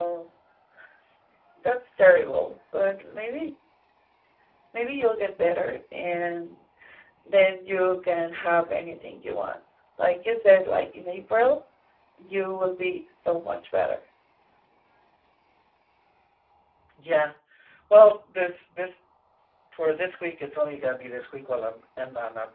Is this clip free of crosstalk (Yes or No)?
Yes